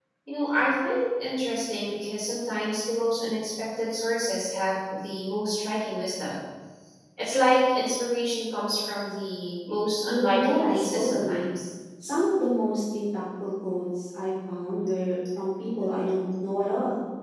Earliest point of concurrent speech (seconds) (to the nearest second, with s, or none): 10 s